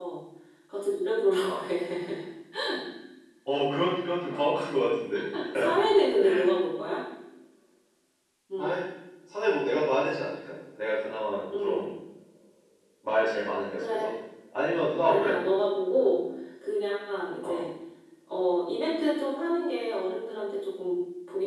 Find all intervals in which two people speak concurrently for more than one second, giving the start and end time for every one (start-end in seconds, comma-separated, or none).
none